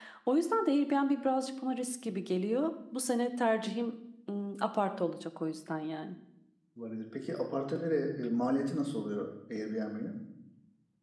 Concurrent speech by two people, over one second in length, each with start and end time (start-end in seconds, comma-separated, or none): none